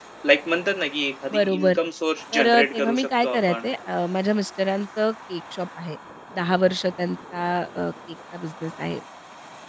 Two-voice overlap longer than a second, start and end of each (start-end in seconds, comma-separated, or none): 2.3-3.6